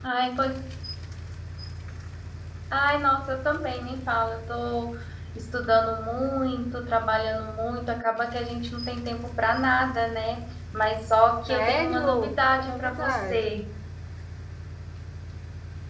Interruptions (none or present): present